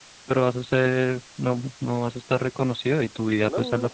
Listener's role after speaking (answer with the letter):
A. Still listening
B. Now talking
A